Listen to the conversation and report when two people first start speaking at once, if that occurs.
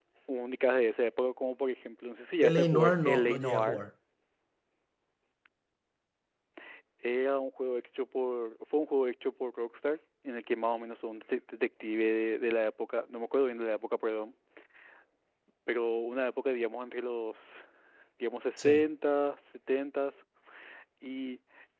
2 s

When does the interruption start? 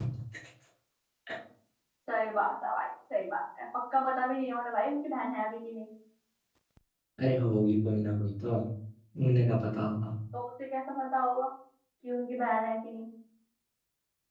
none

